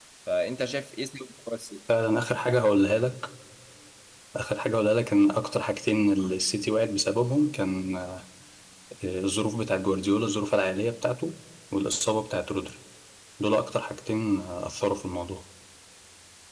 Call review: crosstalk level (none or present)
none